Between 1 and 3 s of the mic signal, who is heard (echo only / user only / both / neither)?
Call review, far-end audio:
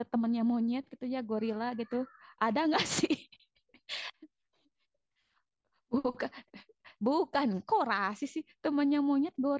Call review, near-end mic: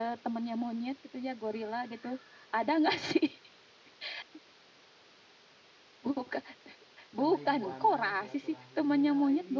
echo only